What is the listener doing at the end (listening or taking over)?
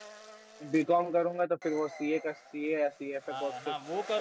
taking over